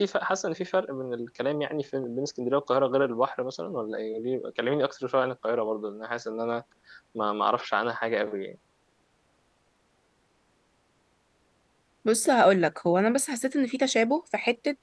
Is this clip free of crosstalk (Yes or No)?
Yes